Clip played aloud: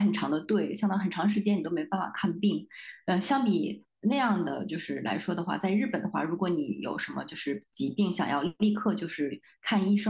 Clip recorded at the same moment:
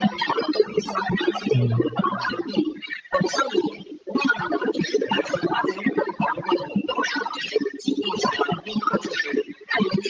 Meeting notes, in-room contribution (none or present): present